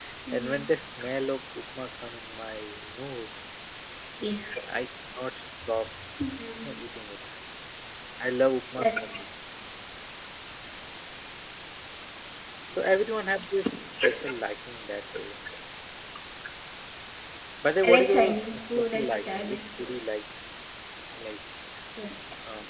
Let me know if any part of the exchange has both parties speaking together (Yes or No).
Yes